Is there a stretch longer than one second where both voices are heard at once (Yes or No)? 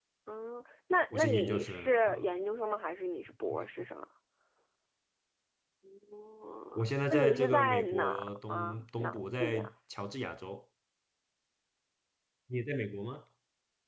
Yes